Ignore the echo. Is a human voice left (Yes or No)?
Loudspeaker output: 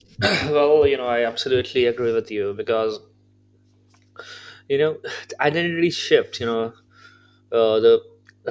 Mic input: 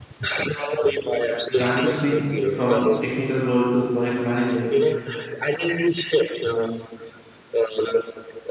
Yes